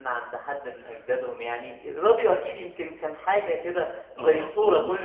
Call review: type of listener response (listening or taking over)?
taking over